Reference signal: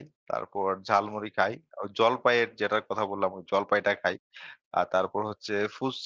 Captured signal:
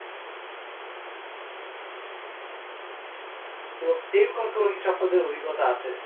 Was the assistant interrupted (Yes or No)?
Yes